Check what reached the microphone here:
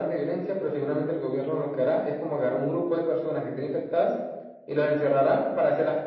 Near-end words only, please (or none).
none